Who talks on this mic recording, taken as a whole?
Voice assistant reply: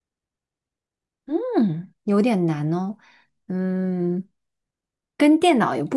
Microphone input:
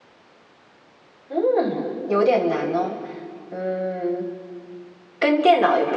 echo only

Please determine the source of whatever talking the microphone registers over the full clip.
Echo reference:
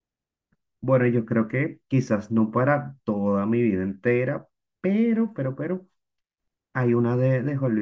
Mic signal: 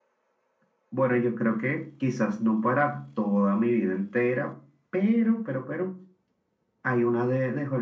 echo only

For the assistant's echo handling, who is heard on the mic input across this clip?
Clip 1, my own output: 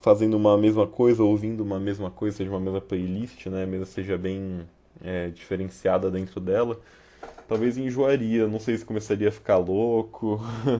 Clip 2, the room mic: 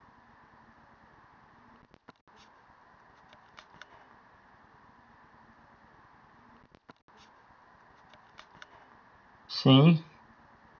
user only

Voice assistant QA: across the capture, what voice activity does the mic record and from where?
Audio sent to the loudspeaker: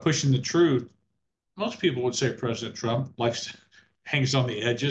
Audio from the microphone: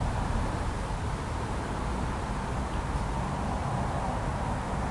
neither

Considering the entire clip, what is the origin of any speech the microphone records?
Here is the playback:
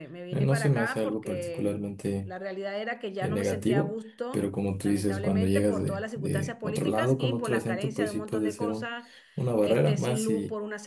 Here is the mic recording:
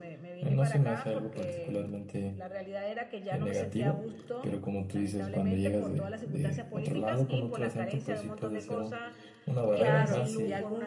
both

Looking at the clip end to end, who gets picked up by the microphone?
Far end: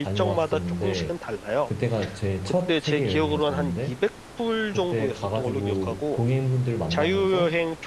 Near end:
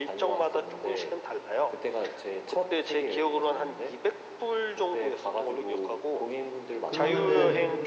both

